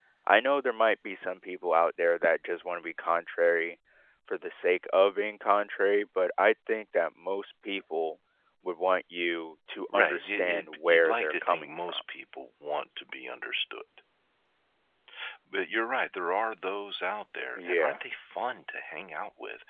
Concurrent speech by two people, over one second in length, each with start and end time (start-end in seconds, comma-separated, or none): 9.9-12.0